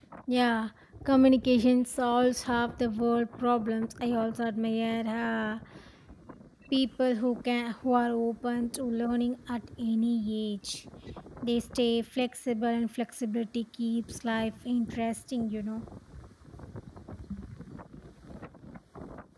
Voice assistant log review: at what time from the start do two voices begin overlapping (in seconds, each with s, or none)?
none